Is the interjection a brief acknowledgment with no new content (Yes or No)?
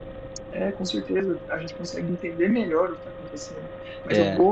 Yes